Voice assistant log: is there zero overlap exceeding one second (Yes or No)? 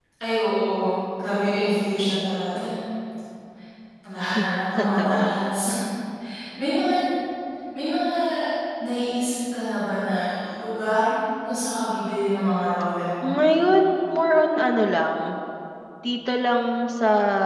No